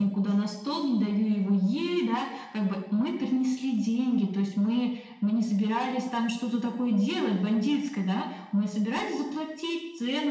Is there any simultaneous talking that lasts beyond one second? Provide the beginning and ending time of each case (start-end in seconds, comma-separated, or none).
none